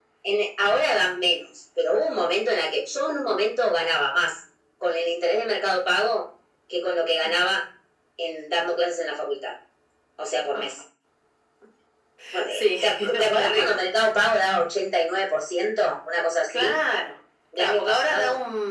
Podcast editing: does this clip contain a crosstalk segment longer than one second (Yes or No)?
Yes